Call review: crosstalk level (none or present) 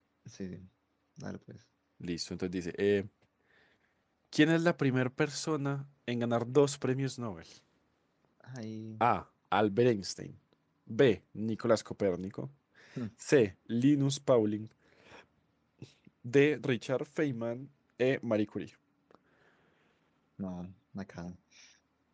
none